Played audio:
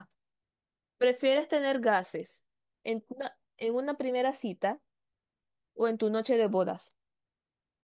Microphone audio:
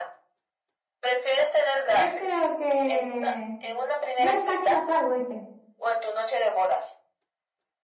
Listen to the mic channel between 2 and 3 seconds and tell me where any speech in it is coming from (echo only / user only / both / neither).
both